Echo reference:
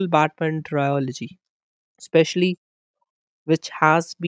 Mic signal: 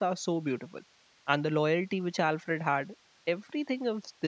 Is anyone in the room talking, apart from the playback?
Yes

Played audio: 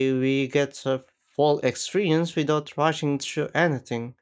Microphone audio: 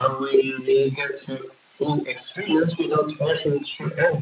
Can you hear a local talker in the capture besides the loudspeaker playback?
No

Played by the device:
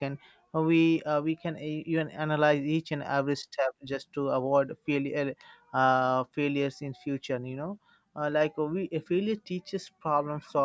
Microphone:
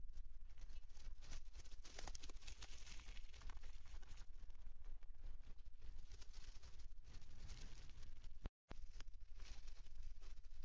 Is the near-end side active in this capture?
No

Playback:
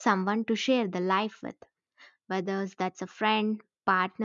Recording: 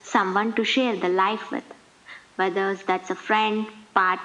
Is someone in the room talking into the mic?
No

